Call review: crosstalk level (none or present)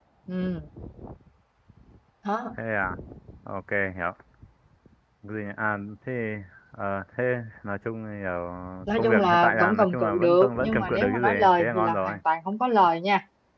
present